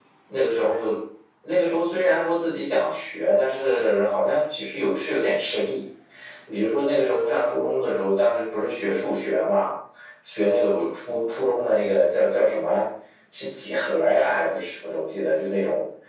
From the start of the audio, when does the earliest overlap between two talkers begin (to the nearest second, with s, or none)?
none